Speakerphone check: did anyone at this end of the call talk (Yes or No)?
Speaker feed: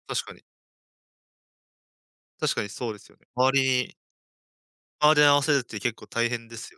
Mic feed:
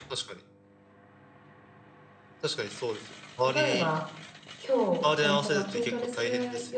Yes